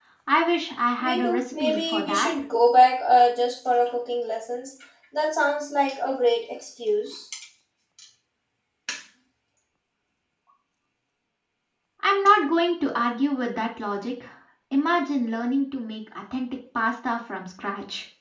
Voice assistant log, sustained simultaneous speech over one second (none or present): present